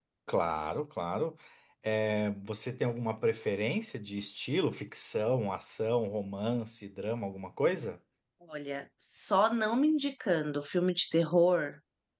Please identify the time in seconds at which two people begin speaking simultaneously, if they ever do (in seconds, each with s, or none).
none